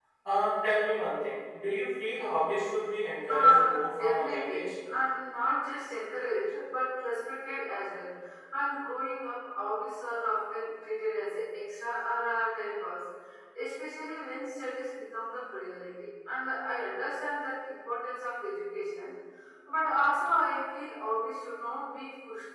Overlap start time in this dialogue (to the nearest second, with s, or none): 3 s